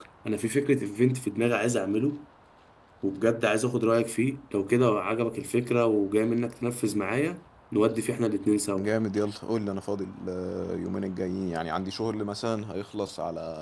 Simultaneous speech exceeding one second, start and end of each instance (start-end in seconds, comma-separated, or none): none